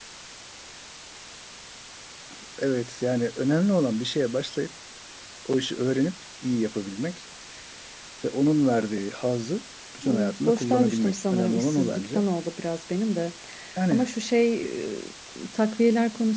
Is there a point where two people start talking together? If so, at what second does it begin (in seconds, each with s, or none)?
10.0 s